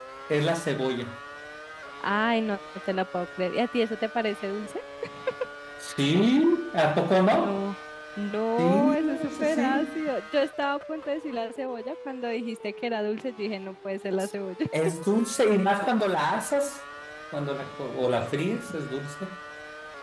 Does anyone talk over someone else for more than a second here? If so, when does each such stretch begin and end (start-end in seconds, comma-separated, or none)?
8.6-10.0